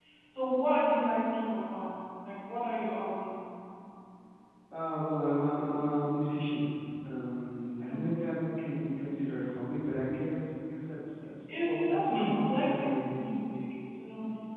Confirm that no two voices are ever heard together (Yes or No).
No